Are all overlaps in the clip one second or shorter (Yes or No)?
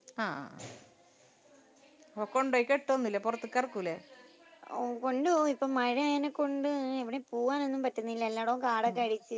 Yes